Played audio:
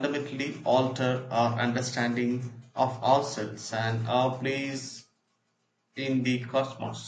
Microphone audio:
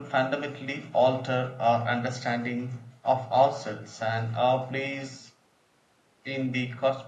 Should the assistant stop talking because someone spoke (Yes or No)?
No